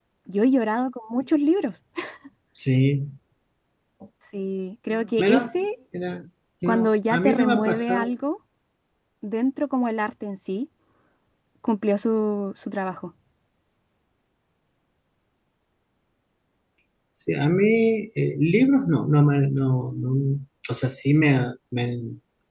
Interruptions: present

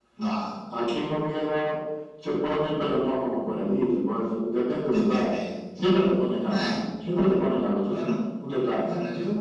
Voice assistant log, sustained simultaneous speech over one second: none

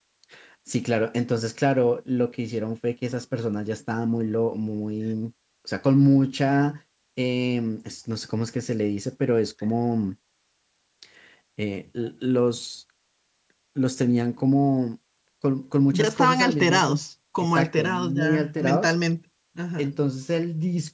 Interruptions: present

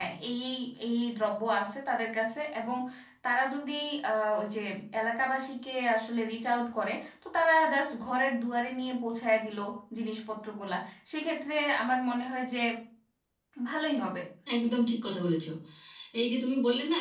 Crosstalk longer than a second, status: none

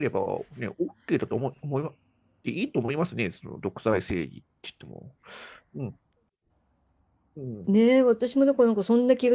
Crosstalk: none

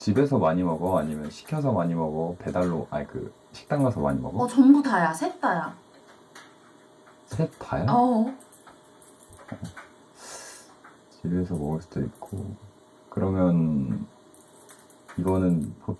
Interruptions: none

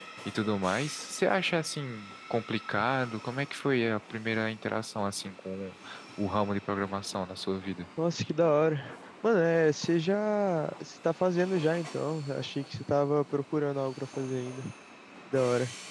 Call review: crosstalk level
none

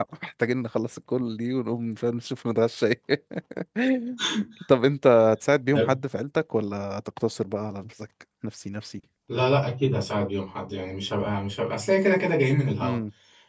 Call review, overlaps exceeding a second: none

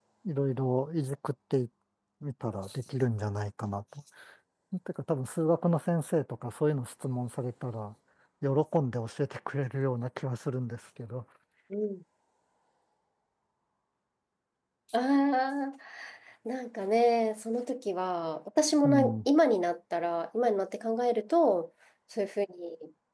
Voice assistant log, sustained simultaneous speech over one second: none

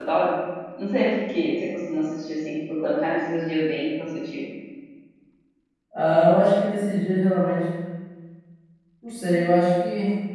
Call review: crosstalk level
none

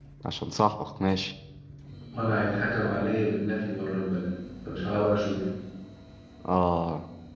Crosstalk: none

